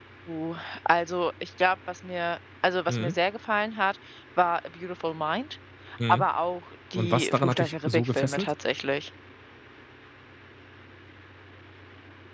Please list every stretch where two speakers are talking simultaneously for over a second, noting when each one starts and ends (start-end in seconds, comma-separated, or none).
7.0-8.5